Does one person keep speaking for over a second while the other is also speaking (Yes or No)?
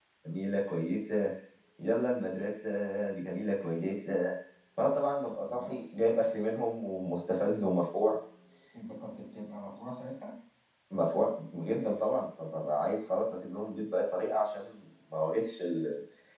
No